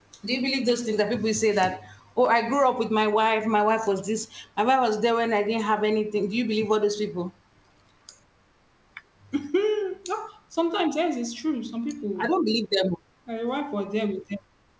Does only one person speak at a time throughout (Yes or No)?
Yes